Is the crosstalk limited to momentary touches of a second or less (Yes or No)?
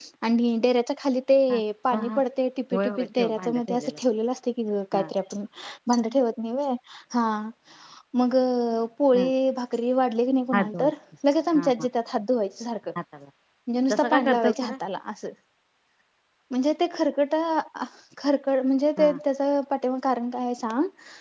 No